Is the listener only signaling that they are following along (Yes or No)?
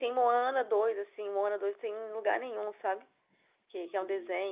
Yes